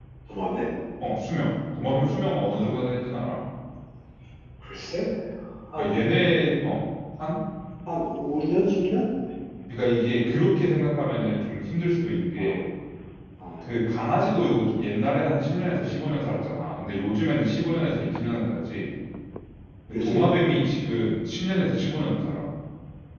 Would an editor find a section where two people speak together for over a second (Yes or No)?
No